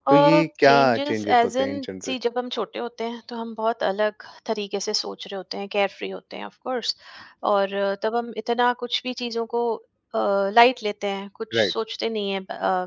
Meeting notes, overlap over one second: present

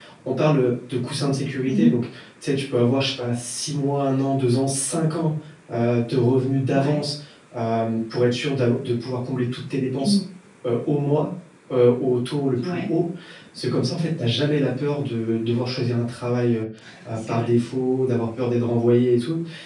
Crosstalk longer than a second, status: none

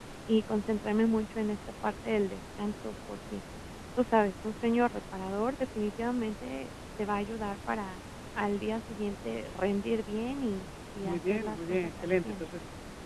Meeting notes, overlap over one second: present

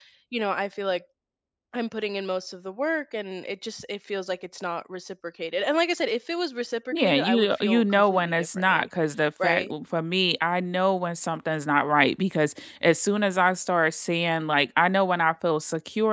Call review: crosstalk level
present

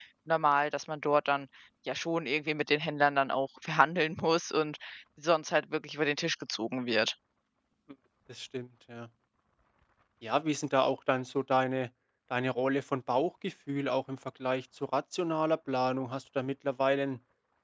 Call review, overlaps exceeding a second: none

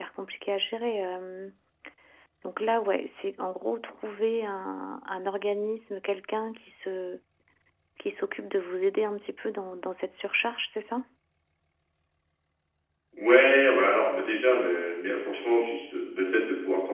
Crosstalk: none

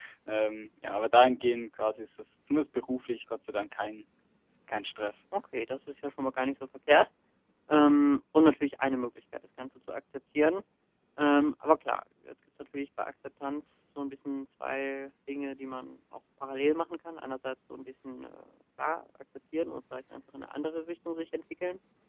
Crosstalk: none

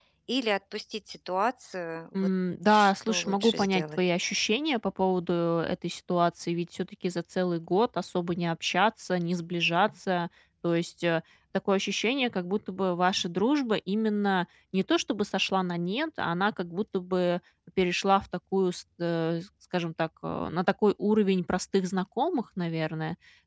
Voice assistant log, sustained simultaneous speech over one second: present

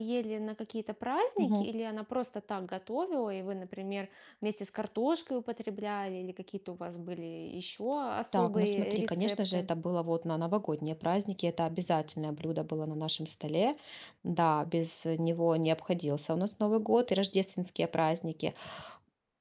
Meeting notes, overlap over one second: present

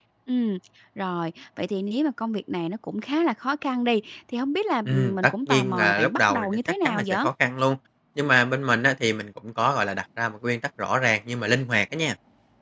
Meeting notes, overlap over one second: present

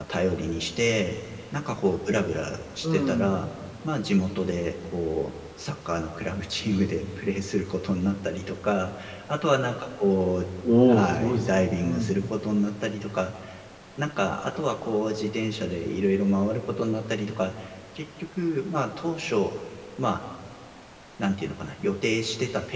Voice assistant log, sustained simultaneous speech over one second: present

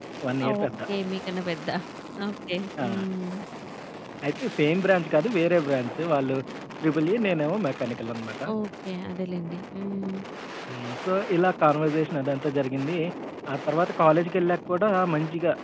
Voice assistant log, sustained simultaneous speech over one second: none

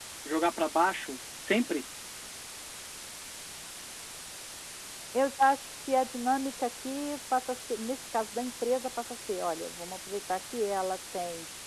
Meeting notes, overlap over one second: none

